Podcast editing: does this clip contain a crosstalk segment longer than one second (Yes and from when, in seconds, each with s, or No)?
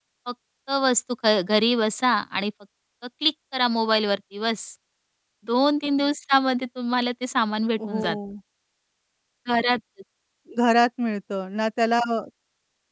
No